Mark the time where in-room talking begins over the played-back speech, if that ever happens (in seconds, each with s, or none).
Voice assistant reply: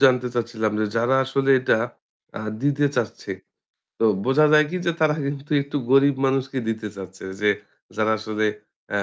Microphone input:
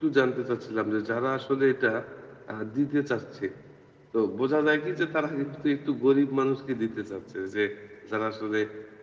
none